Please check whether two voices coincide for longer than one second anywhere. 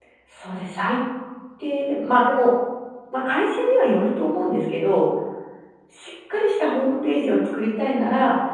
No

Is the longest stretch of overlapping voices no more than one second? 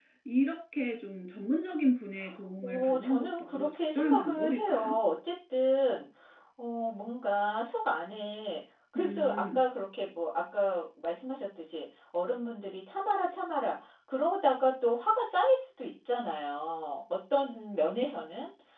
No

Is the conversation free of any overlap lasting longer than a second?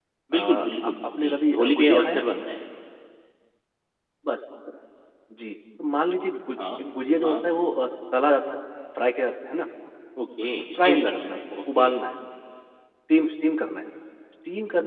No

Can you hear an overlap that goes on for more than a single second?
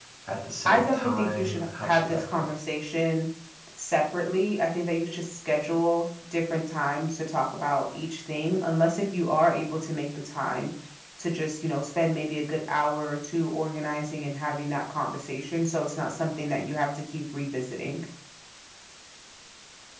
Yes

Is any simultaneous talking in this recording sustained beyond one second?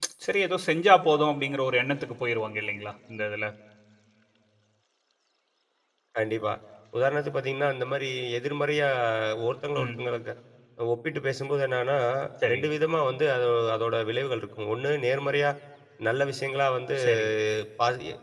No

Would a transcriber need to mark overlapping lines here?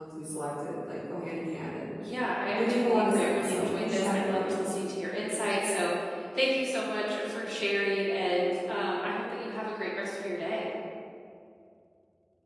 Yes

